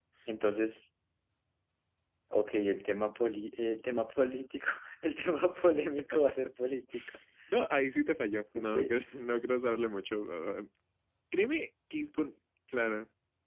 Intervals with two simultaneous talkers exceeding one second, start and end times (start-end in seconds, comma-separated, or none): none